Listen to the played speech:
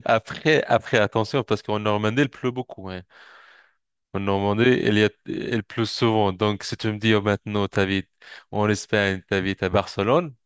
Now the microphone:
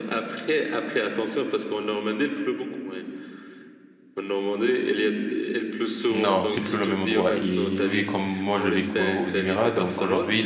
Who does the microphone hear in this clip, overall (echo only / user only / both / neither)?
both